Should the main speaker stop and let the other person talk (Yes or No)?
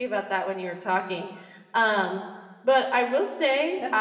Yes